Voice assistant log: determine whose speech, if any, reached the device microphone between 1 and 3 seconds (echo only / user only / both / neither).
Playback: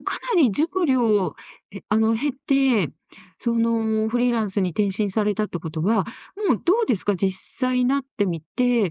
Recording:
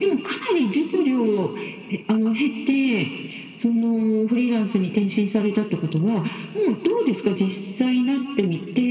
echo only